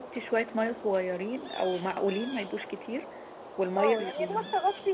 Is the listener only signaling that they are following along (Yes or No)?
No